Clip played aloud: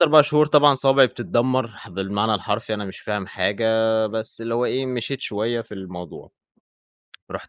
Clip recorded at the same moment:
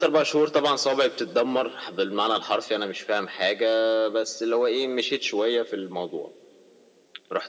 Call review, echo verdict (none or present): present